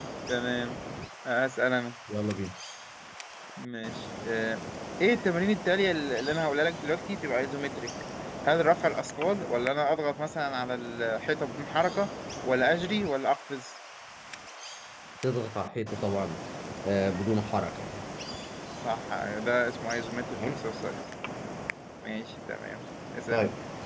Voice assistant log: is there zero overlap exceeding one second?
Yes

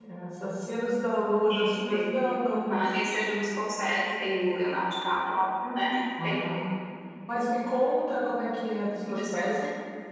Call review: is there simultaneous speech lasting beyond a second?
Yes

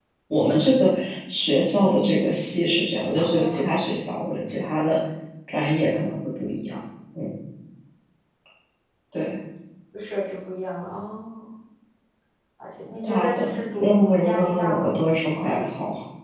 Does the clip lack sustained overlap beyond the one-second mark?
No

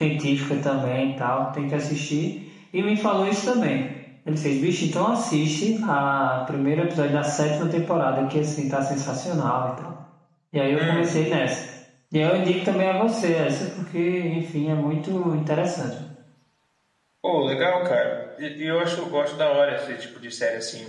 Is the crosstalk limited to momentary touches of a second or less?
Yes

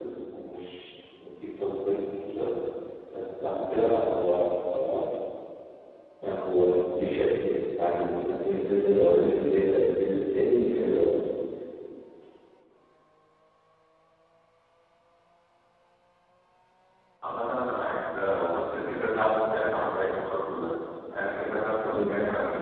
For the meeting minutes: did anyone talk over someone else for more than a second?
No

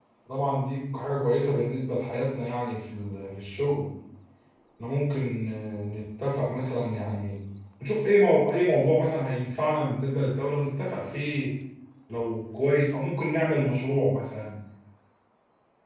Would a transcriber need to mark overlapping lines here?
No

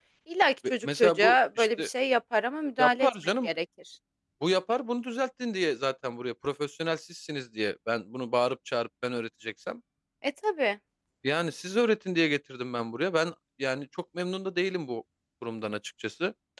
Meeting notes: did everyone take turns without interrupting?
No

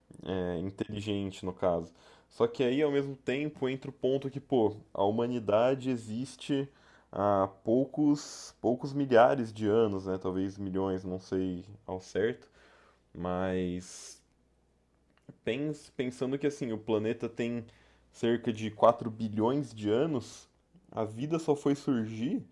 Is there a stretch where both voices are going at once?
No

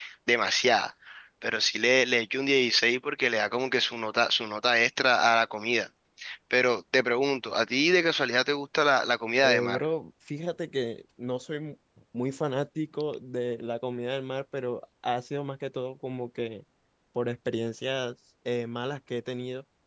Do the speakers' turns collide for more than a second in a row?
No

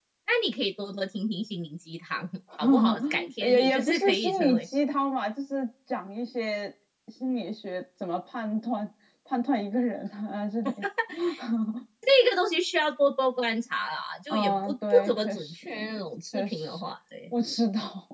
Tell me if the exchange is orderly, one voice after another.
No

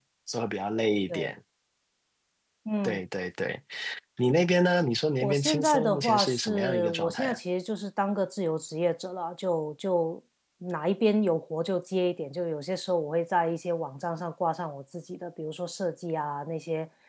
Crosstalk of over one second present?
Yes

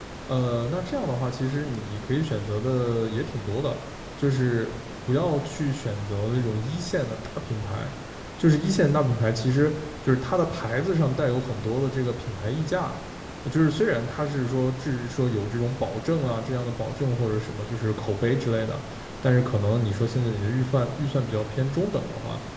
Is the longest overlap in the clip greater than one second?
No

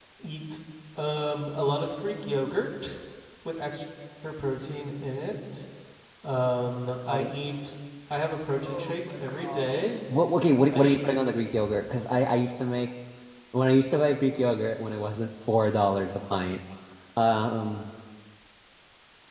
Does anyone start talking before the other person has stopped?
Yes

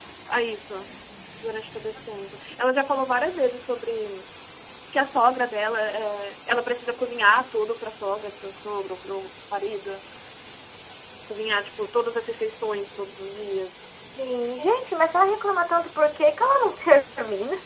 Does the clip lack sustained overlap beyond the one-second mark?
Yes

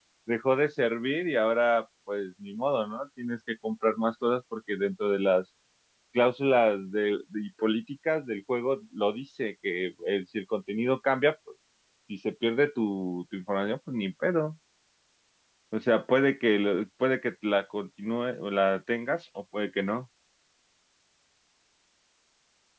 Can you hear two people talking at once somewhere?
No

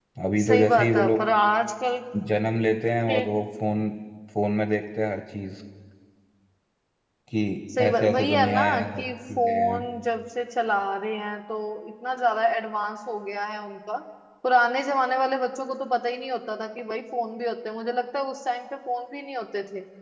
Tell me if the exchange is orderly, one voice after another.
No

